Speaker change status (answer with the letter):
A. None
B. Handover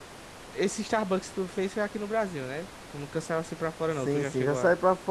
B